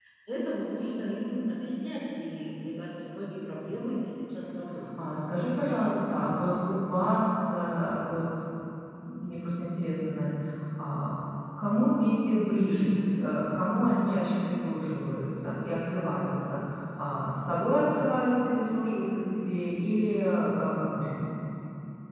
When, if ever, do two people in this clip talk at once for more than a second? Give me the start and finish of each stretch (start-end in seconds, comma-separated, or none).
none